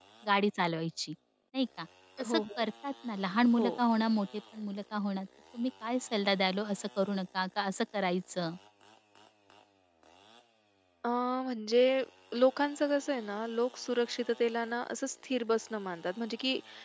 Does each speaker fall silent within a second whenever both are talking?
Yes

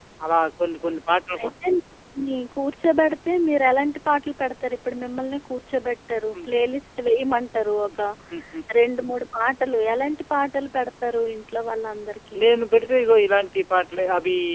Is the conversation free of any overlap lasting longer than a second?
Yes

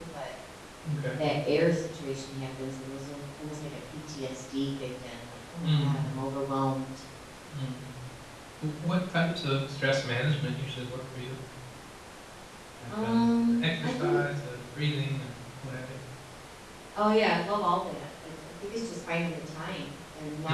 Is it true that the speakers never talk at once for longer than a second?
No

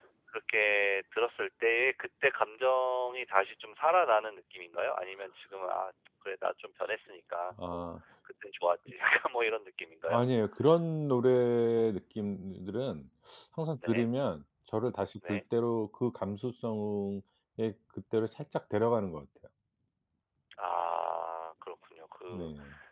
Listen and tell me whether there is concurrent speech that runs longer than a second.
No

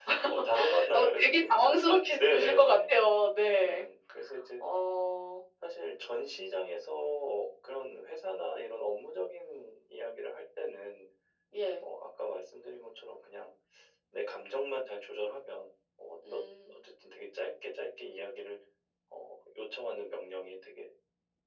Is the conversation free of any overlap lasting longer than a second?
No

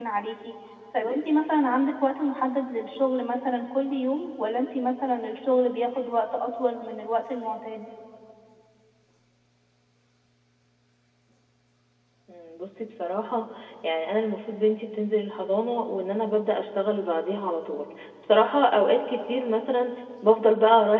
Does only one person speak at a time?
Yes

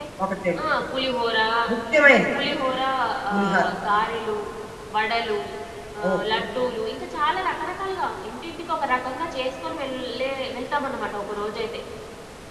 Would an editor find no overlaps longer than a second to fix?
Yes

